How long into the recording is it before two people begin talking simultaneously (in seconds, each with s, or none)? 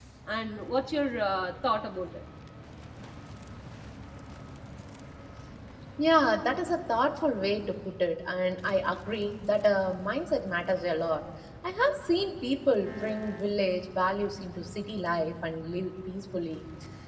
none